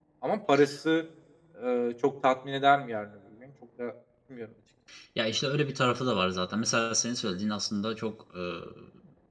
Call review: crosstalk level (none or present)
none